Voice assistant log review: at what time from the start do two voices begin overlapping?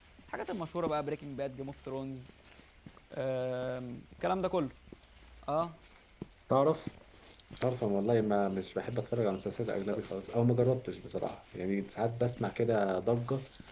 none

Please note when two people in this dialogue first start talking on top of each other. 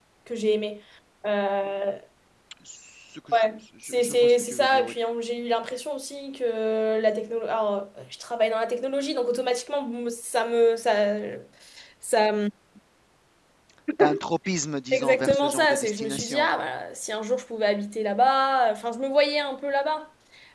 3.3 s

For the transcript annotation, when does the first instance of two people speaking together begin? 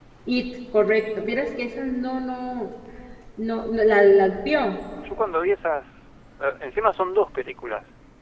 none

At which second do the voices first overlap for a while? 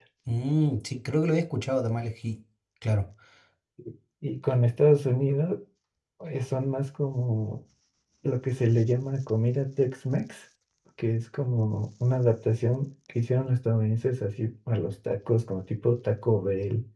none

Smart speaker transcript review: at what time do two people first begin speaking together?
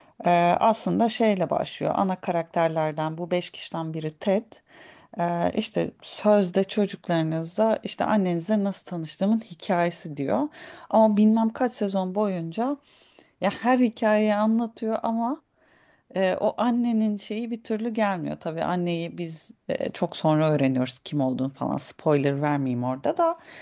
none

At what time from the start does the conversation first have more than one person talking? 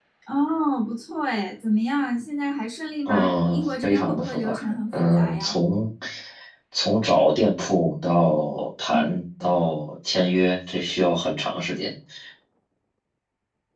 3.0 s

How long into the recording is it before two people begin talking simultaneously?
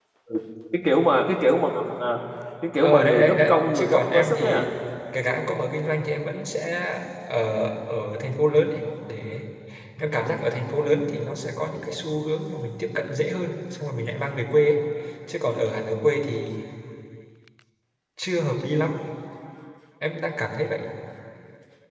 2.8 s

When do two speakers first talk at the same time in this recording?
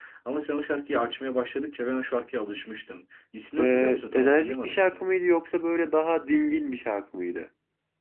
3.6 s

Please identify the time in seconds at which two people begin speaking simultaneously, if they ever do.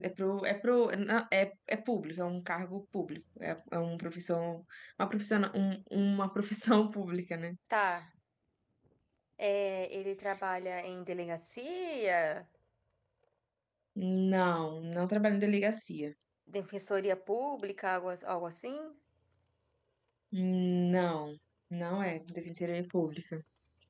none

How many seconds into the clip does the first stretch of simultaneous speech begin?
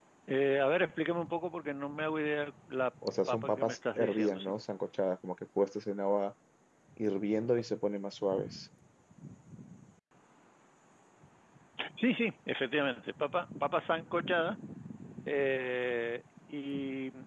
3.3 s

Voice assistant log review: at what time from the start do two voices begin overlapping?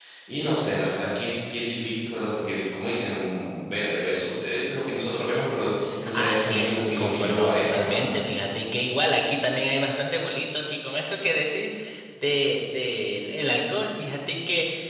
6.0 s

